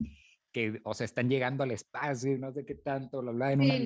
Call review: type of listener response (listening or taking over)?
taking over